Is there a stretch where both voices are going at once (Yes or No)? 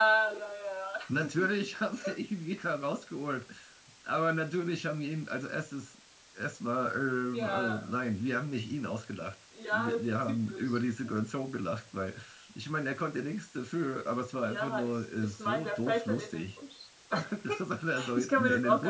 Yes